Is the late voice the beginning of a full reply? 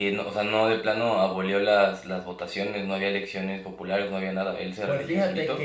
Yes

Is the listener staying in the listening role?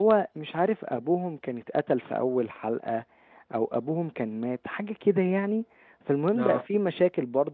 Yes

